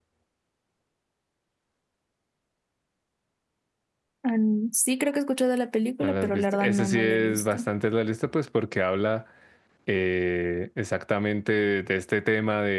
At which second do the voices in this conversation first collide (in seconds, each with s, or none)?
6.0 s